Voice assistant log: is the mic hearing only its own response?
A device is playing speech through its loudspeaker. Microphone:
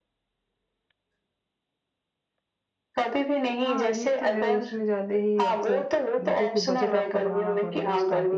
No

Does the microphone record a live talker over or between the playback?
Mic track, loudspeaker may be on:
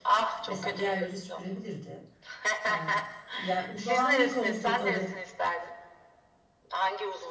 Yes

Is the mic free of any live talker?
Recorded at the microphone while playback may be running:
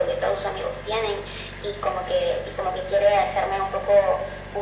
Yes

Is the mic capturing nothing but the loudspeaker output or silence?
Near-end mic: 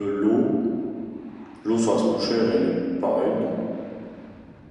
Yes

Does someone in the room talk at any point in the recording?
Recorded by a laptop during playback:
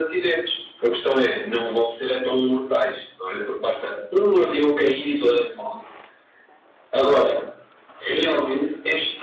No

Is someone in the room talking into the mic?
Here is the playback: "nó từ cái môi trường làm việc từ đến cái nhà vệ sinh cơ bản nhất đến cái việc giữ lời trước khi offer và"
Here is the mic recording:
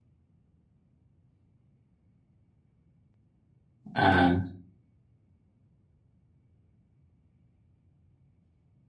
Yes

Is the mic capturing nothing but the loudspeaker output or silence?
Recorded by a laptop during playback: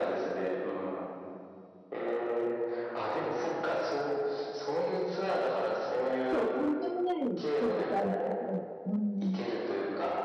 No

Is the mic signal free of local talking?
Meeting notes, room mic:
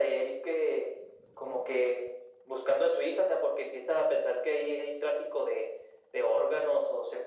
Yes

